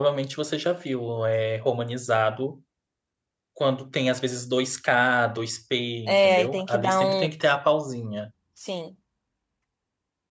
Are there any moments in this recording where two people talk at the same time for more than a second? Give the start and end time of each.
6.1-7.3

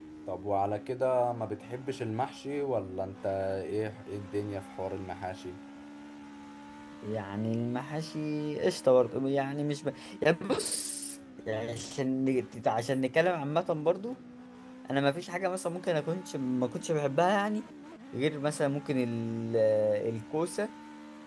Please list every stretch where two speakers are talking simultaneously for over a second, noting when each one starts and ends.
none

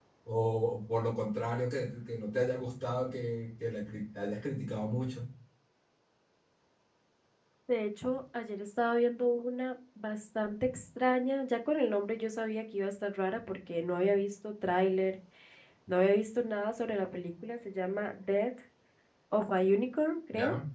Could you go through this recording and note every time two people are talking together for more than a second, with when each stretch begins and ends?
none

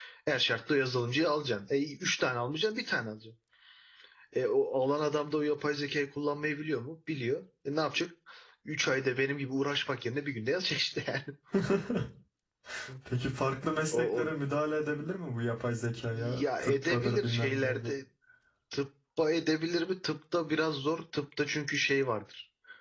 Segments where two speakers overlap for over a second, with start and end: 16.1-17.9

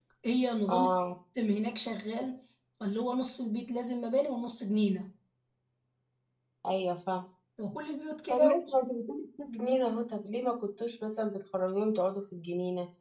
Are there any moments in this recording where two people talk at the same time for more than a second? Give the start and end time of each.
none

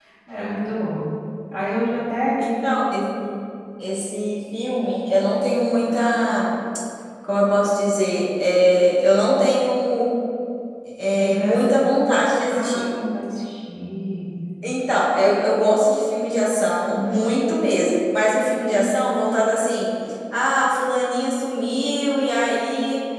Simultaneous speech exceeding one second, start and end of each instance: none

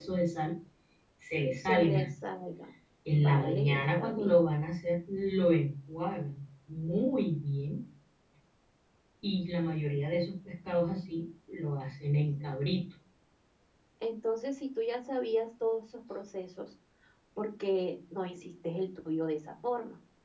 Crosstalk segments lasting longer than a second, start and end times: 3.1-4.4

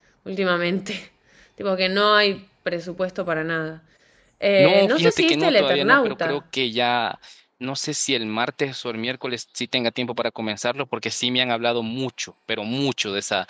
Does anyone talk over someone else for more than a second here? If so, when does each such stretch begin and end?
4.6-6.4

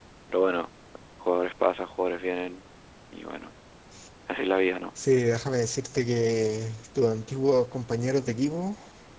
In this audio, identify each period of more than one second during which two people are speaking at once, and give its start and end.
none

